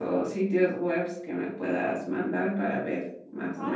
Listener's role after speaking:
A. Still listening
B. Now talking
B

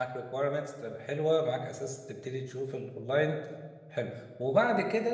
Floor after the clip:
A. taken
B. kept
B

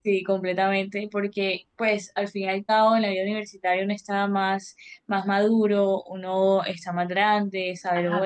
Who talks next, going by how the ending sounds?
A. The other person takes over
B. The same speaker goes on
A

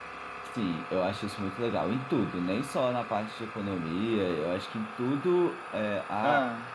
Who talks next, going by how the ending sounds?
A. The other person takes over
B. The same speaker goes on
B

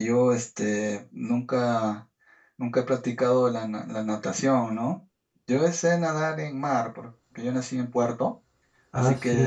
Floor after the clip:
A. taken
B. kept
B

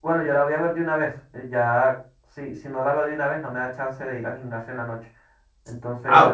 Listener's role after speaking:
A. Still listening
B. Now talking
A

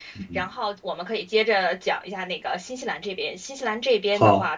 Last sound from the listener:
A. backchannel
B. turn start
A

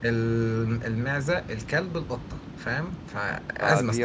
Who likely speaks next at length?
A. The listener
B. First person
A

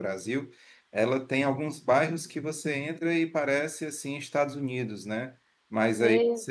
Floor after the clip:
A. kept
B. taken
A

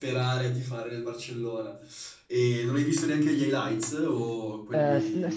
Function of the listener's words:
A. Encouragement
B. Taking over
B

